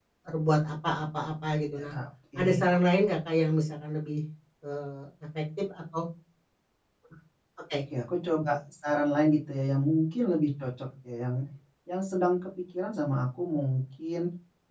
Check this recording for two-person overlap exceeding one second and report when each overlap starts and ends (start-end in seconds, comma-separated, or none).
none